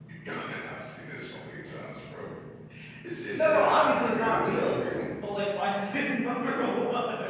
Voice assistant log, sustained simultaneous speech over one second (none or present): present